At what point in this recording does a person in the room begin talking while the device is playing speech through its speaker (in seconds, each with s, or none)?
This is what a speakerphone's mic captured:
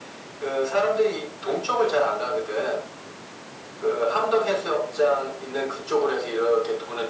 none